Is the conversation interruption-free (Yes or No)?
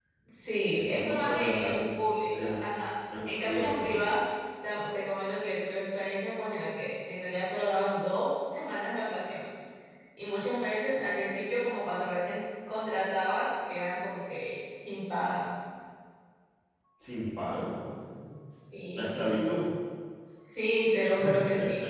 No